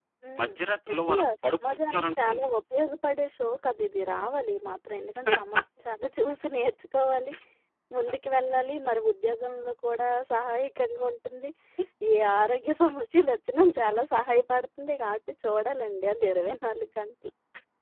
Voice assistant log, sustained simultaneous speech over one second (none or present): present